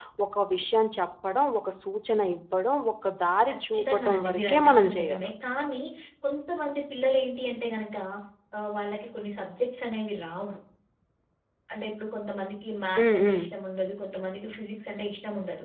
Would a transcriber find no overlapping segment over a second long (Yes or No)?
No